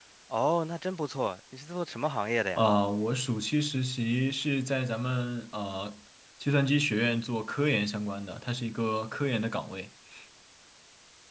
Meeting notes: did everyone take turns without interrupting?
Yes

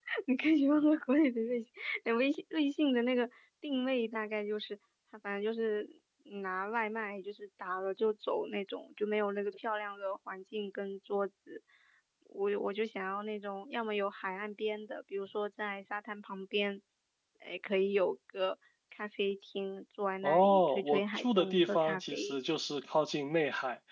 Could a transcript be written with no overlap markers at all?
No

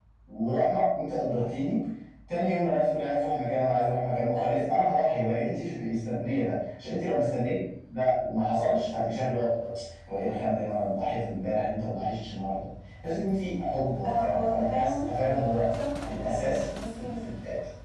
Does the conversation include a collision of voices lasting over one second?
Yes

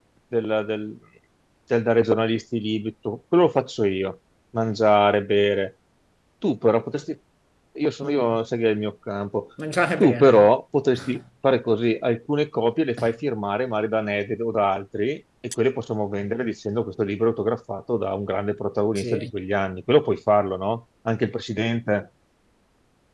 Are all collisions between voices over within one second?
Yes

